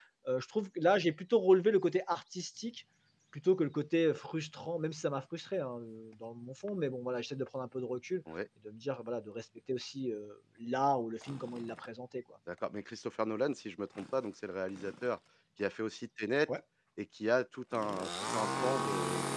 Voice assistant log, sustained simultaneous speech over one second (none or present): none